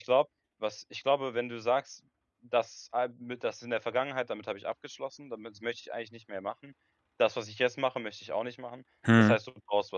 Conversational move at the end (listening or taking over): listening